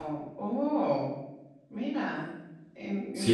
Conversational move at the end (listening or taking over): taking over